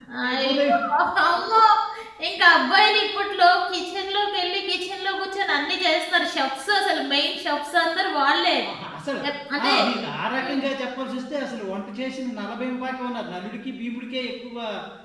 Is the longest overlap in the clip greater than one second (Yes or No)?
No